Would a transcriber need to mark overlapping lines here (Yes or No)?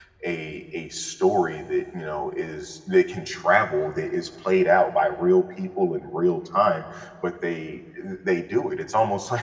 No